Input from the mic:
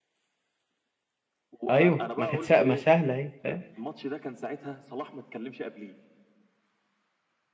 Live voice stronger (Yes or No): Yes